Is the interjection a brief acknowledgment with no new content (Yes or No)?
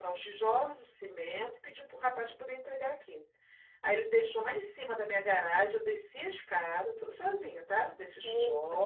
Yes